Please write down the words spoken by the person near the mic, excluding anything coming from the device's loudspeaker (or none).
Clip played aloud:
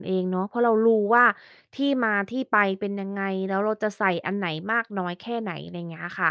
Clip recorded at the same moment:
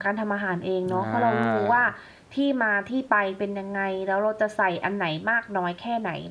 อา